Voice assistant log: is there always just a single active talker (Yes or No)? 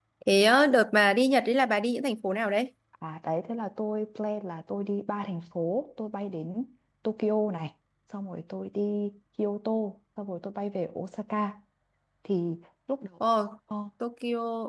Yes